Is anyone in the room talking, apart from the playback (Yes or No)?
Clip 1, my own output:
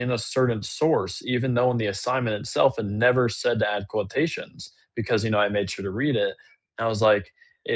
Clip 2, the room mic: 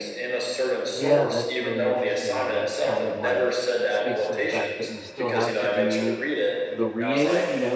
Yes